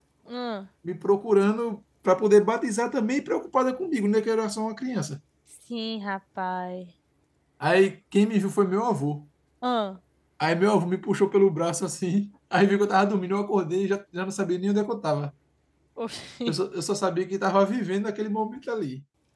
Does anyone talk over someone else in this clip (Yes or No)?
No